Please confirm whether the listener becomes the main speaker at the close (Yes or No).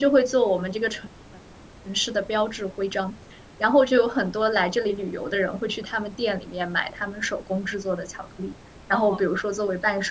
No